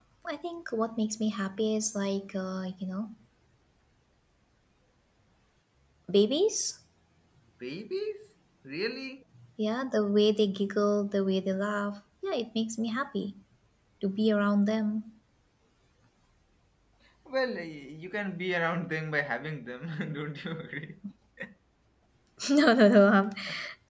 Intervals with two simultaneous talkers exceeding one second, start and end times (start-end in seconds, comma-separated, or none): none